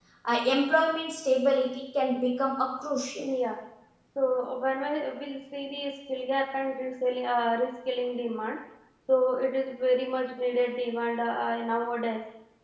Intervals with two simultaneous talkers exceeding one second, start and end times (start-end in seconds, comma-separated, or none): none